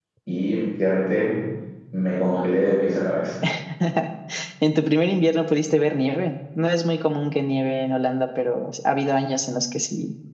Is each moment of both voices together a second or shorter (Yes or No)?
Yes